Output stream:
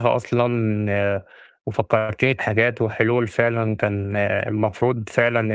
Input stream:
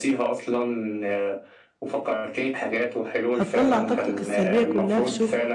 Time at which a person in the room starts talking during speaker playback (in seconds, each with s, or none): 3.3 s